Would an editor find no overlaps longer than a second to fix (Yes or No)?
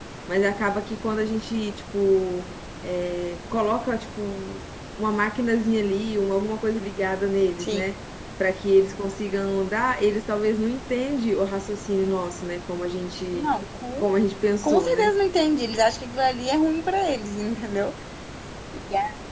Yes